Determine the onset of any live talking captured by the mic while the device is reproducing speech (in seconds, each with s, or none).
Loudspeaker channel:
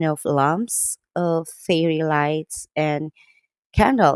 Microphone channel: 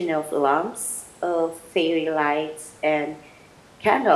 none